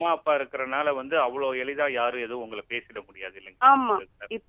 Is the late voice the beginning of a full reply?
Yes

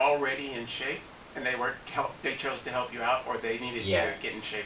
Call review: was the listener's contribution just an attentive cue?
No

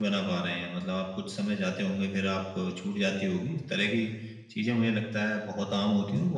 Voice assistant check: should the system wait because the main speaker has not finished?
Yes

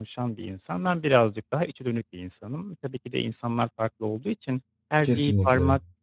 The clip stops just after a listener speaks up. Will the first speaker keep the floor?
Yes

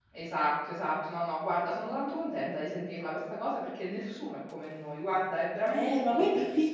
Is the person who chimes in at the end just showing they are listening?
No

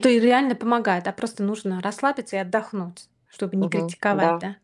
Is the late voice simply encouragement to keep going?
No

